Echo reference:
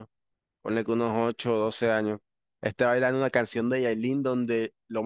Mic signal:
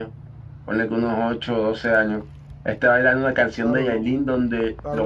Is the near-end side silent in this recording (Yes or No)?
No